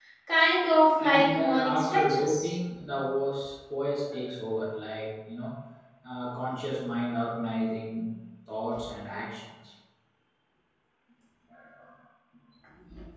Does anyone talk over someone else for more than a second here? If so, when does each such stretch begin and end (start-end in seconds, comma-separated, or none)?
1.0-2.5